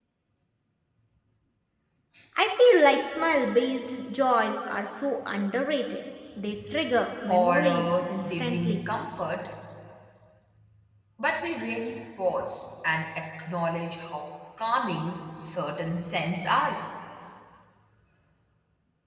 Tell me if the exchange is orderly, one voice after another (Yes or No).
No